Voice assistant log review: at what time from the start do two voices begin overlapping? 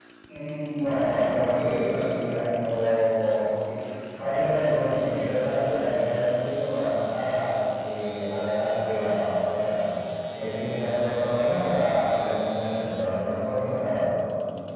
0.7 s

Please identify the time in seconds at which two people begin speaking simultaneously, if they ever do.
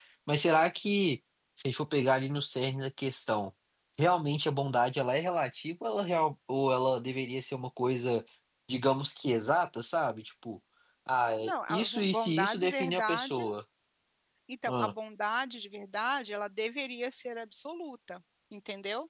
11.4 s

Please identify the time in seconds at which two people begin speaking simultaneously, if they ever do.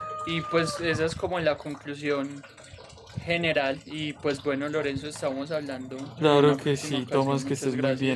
6.2 s

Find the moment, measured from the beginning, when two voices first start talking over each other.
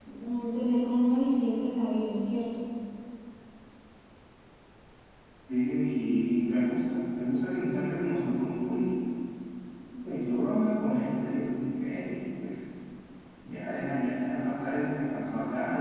none

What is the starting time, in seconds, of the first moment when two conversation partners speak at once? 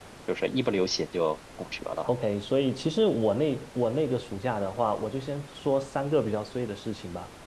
none

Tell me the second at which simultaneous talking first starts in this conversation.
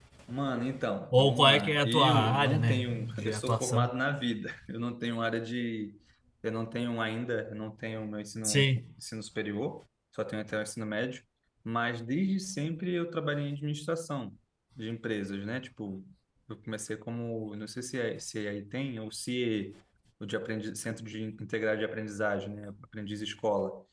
1.1 s

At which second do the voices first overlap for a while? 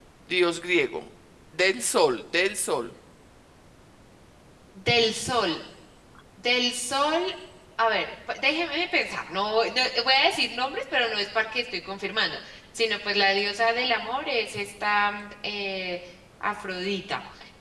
none

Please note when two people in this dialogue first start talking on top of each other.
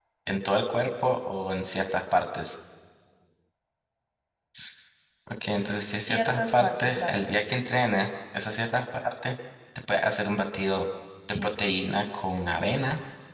6.0 s

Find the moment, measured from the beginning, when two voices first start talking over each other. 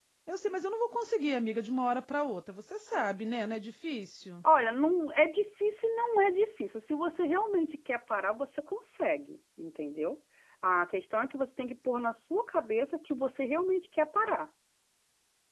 none

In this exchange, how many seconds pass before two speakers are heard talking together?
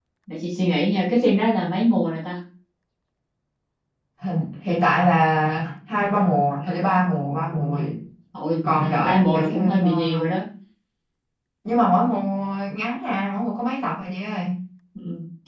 8.8 s

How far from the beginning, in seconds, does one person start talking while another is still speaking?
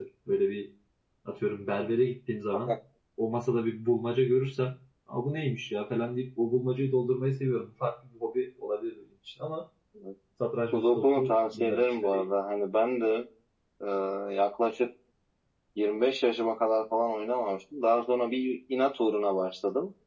10.7 s

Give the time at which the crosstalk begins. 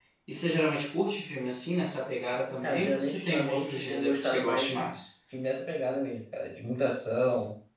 2.6 s

